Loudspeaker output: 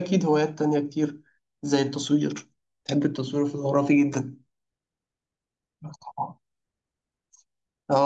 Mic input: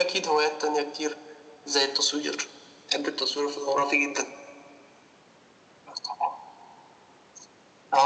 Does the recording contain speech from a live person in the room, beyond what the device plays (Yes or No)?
No